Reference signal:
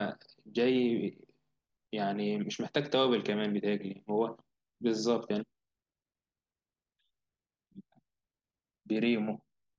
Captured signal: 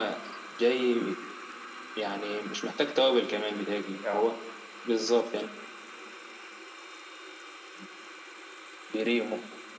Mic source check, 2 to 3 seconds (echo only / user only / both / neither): echo only